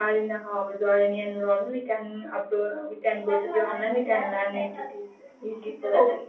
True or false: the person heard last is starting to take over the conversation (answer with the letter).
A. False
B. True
B